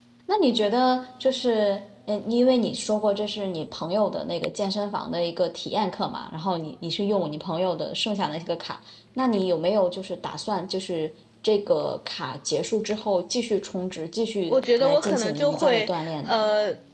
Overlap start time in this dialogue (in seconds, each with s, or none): 14.5 s